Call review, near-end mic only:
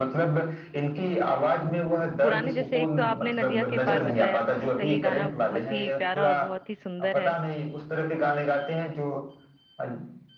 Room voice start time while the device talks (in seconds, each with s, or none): 2.2 s